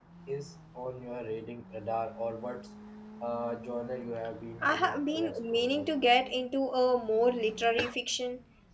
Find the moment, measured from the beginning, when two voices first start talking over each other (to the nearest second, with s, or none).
5 s